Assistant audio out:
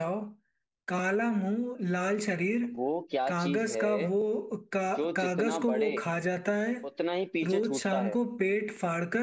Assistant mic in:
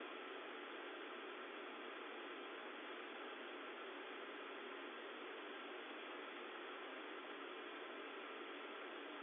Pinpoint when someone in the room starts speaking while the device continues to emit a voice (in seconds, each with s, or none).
none